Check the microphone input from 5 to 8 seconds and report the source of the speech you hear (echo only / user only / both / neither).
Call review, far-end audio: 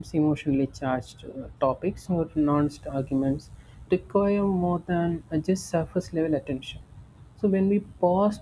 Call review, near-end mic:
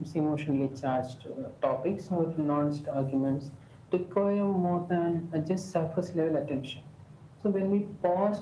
echo only